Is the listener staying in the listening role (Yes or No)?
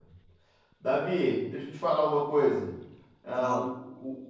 Yes